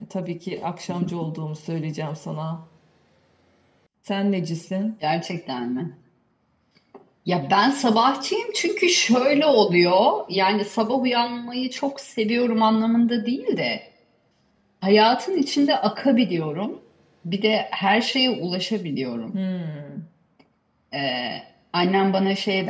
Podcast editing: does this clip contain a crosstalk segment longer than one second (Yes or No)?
No